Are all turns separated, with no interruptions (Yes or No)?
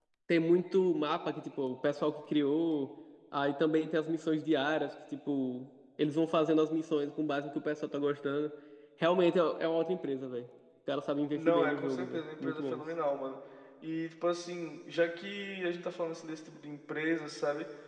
No